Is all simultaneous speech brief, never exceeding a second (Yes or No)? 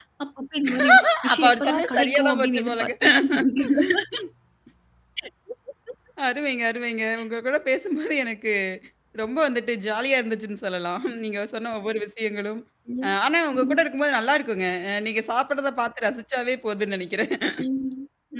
No